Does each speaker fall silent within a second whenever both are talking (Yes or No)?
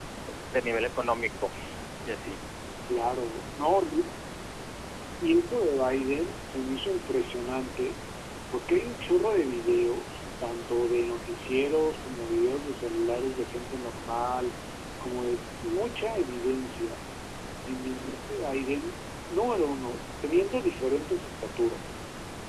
Yes